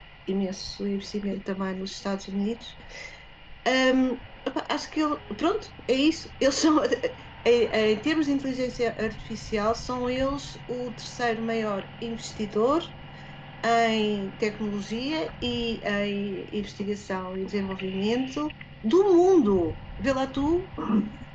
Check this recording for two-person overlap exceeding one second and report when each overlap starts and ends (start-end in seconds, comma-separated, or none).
none